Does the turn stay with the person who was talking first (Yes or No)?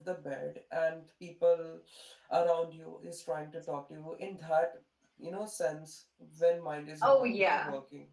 No